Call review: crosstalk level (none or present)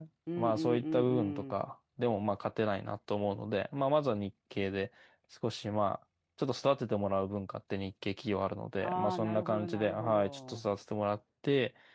present